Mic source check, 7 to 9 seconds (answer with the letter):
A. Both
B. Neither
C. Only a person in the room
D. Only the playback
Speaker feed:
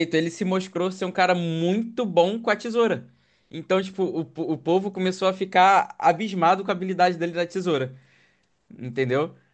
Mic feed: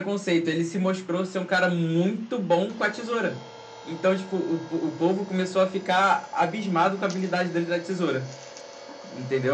D